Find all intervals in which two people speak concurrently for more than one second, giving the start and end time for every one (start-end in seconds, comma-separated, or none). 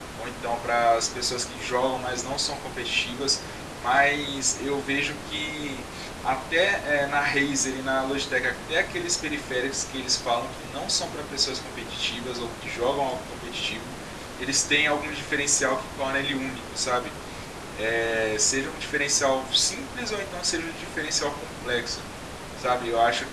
none